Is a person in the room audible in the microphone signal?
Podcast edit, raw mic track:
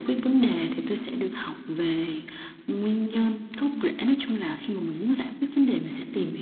No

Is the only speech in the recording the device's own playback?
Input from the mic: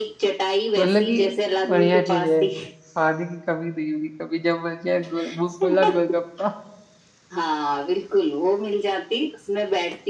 No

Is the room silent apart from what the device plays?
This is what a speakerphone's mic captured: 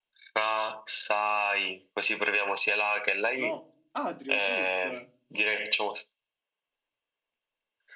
No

